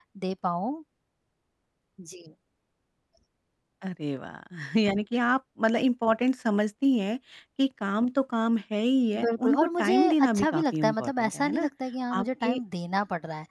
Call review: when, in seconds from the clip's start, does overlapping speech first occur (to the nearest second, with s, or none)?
9 s